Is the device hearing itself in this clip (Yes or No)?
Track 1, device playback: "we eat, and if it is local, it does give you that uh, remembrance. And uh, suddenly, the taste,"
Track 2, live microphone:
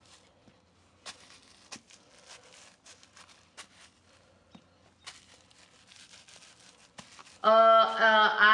No